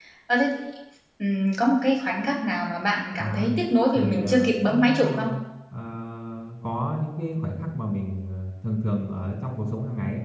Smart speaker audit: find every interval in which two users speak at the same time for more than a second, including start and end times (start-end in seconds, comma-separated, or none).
4.0-5.3